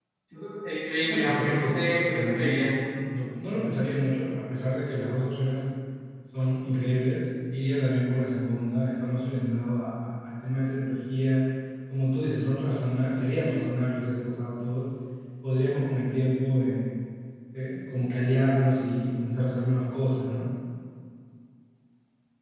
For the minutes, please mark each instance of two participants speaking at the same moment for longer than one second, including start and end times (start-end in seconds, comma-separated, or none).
0.9-2.6